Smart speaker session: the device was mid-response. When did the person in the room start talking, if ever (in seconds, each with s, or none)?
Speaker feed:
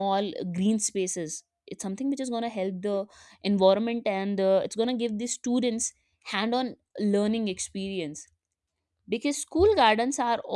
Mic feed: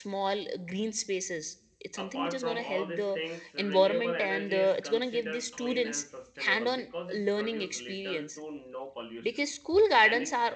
2.0 s